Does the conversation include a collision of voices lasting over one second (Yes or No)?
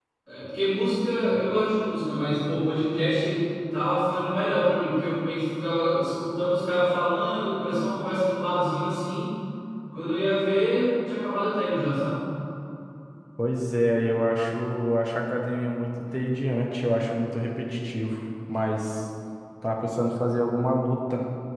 No